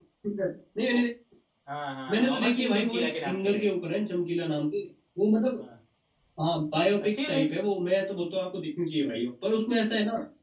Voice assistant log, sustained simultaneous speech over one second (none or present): present